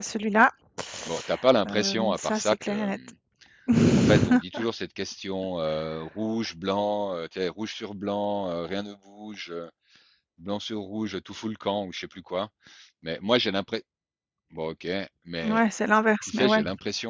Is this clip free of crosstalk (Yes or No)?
No